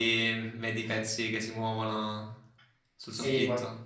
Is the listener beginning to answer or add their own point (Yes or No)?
Yes